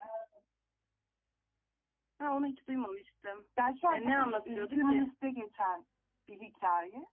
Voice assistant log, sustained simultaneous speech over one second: present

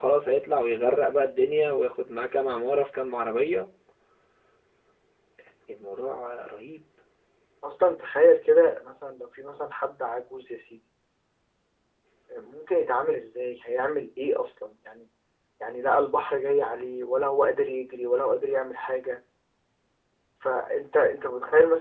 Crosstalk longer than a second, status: none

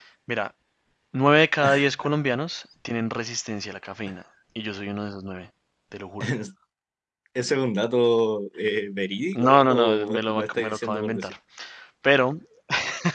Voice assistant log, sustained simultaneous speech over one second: present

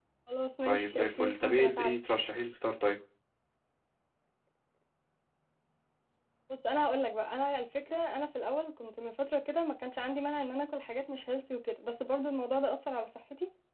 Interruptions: present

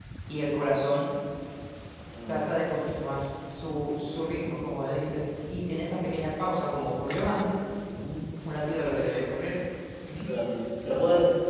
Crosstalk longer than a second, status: none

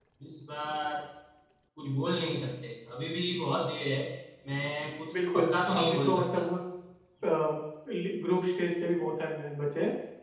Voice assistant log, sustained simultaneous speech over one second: present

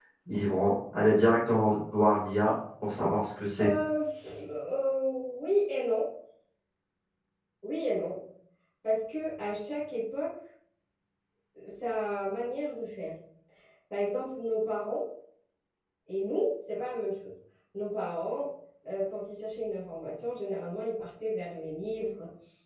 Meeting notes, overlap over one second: none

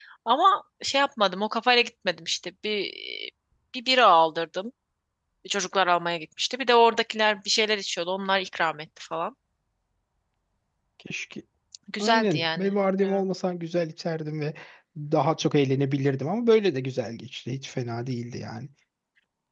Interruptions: present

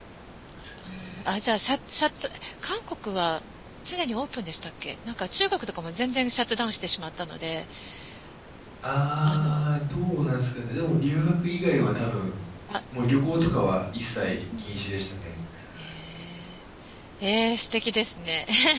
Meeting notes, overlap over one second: none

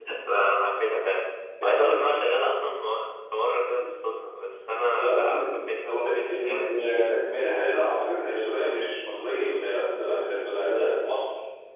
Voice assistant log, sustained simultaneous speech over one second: present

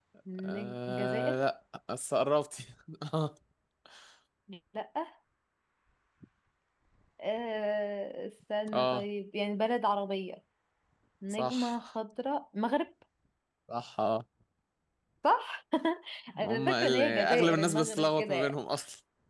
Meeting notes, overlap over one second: present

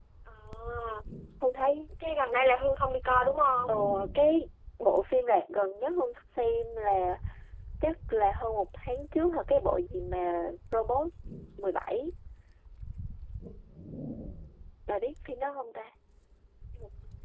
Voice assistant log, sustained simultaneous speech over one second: none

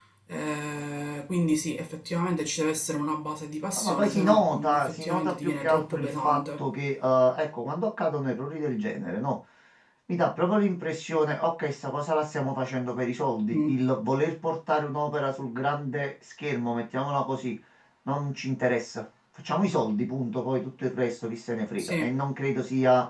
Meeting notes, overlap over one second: present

